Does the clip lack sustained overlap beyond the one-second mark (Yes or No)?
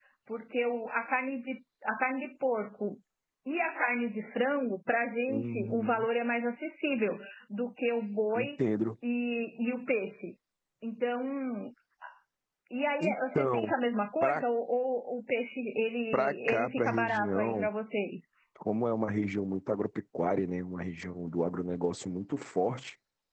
No